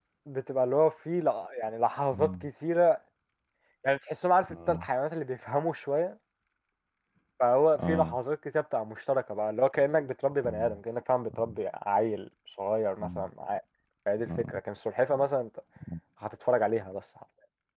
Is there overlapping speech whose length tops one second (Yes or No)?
No